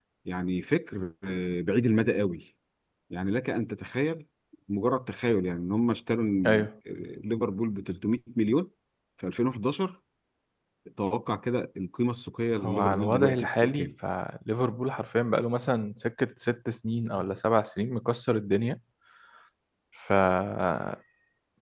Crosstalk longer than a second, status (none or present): present